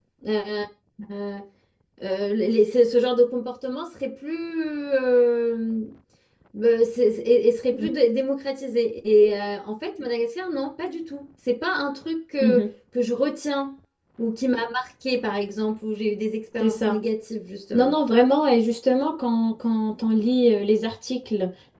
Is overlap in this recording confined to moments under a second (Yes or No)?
Yes